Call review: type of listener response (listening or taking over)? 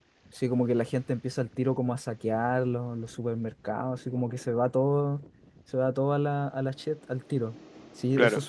listening